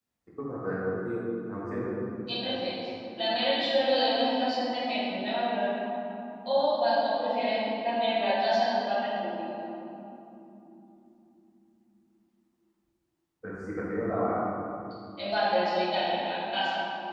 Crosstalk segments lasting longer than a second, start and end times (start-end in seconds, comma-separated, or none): none